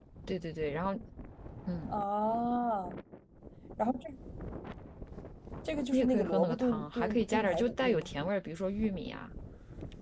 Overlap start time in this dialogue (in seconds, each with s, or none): 5.9 s